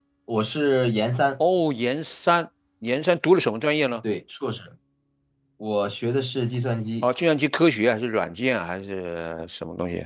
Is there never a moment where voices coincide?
Yes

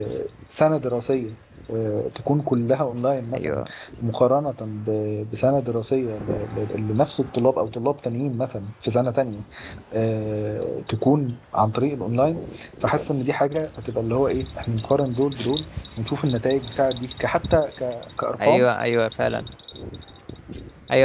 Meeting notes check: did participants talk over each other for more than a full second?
No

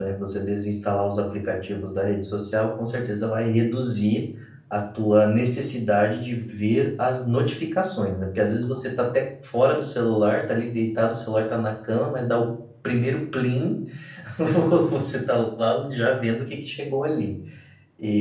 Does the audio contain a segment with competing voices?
No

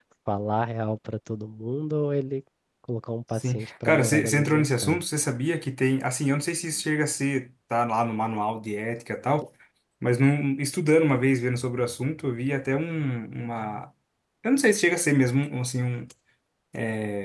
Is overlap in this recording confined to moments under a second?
No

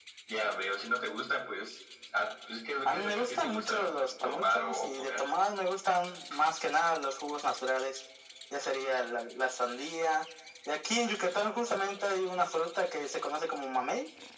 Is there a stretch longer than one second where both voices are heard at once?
Yes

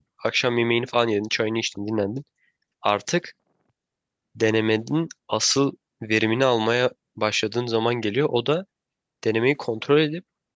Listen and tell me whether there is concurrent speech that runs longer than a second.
No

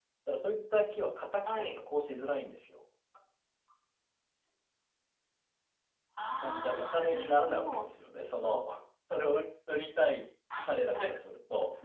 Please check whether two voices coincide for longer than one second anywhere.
Yes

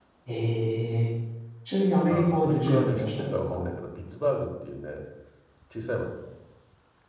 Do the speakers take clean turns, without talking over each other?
No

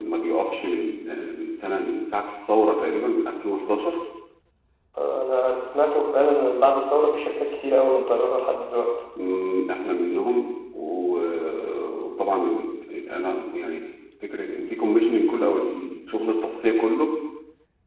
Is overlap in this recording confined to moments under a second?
Yes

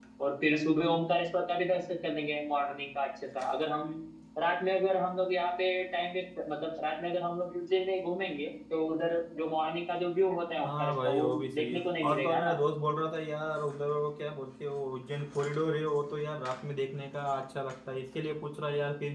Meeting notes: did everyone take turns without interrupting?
No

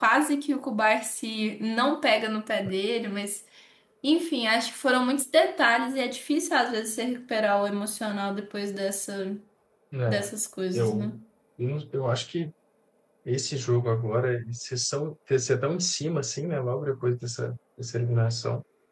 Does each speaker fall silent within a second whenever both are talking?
Yes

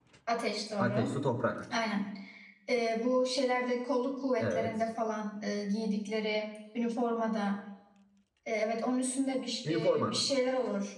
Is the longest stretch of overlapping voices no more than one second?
Yes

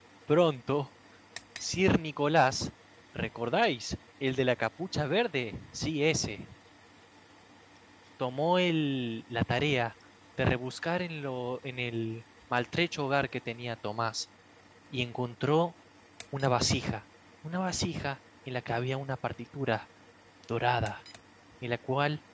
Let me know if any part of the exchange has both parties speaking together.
No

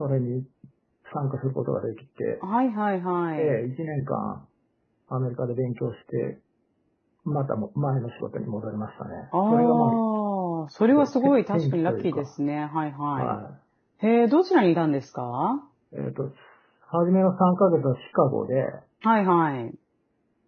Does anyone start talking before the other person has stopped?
Yes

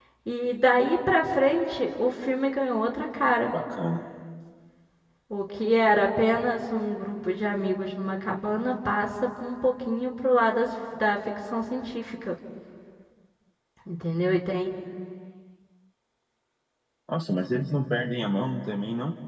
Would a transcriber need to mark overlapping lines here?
No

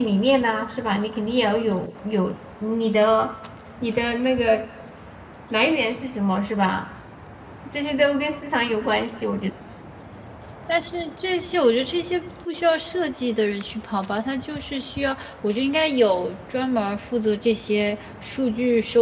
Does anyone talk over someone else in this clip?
No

